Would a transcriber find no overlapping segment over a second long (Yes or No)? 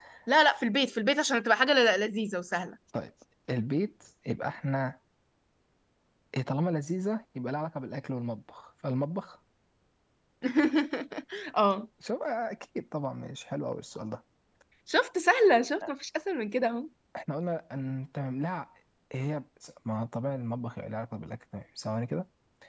Yes